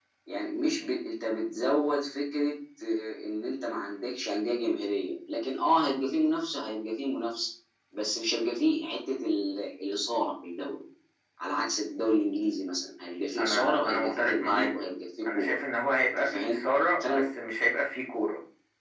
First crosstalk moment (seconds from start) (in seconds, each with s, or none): 13.4 s